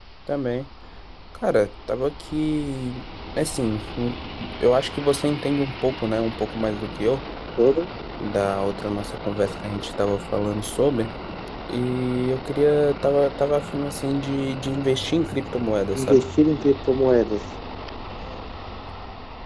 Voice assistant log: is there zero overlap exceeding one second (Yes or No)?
Yes